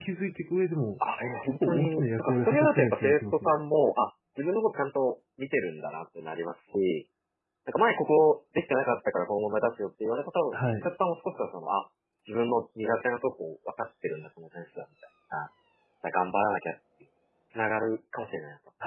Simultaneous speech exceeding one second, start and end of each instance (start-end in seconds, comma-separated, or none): 1.4-3.6